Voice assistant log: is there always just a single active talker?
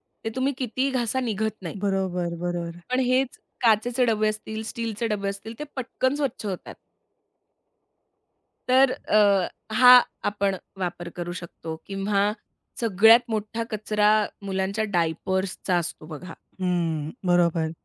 Yes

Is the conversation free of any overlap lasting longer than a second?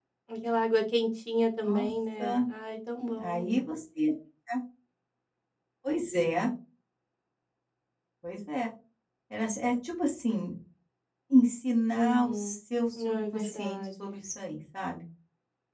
No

